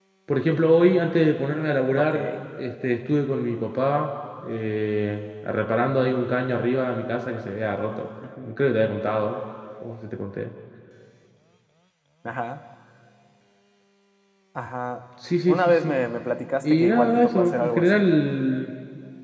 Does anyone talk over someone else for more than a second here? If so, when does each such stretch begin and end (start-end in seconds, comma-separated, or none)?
16.6-18.0